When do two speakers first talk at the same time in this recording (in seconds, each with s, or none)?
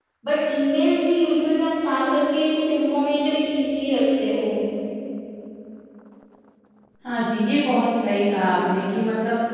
none